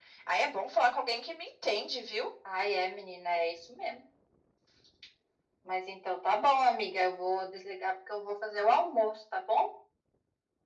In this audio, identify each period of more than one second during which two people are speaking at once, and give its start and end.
none

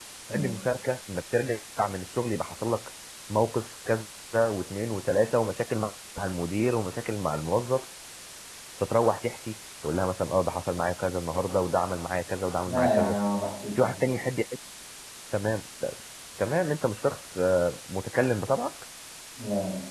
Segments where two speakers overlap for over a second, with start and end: none

